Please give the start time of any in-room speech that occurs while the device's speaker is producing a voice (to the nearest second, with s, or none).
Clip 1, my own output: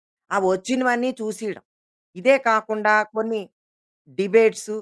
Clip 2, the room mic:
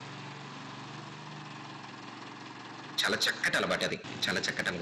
3 s